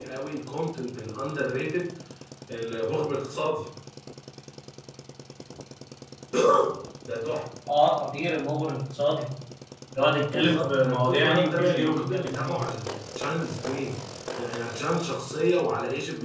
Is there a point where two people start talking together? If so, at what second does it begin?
10 s

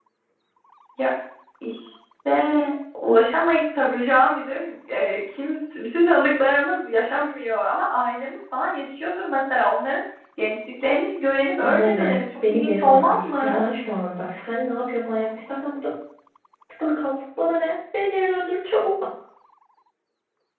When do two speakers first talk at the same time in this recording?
12 s

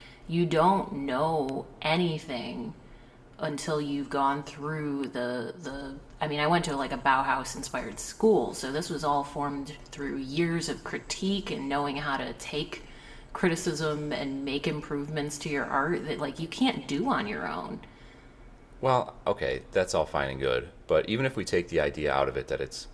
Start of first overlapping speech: none

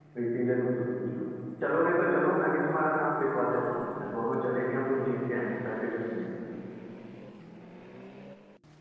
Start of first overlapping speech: none

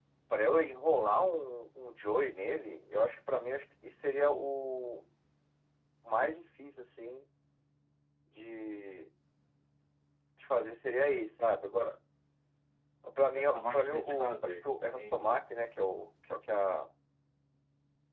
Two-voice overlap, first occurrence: 13 s

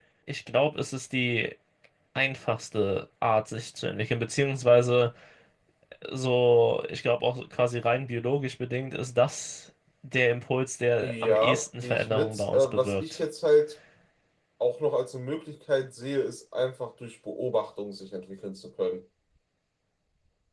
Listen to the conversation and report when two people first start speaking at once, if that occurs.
11 s

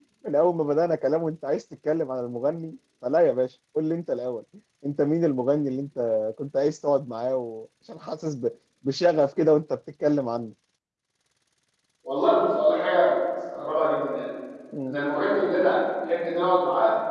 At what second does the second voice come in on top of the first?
none

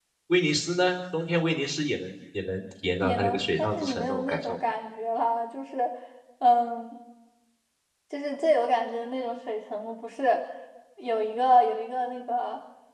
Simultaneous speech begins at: 3 s

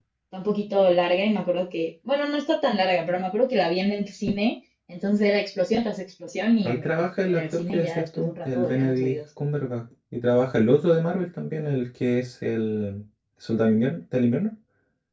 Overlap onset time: 7 s

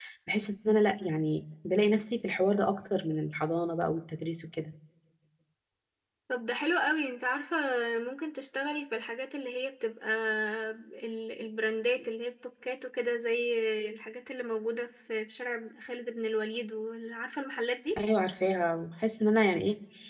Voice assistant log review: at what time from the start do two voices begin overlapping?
none

